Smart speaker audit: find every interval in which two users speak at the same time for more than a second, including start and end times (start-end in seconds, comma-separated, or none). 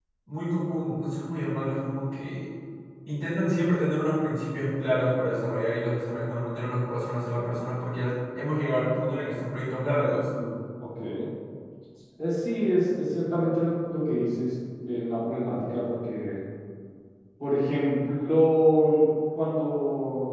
none